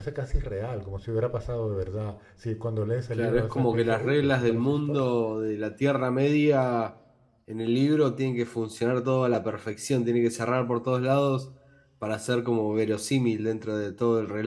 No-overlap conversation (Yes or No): No